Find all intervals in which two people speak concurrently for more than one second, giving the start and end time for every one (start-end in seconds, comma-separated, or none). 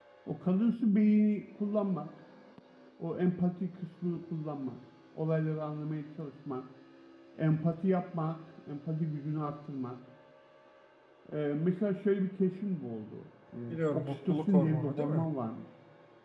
13.7-15.2